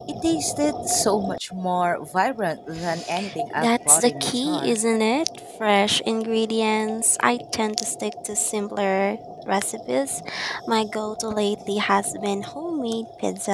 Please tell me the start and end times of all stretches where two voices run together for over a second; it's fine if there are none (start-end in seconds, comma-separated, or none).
3.6-4.8